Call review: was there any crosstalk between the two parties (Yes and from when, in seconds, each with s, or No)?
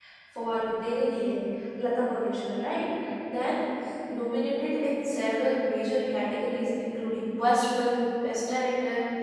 No